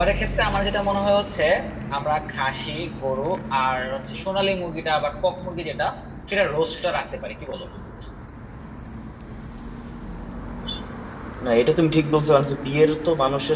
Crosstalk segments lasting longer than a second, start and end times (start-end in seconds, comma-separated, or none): none